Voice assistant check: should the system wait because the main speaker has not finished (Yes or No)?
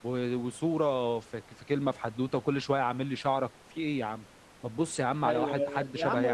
No